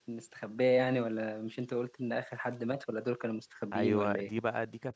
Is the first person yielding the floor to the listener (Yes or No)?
Yes